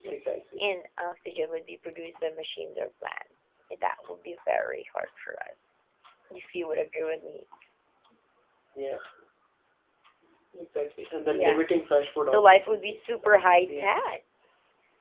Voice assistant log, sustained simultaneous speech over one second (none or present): present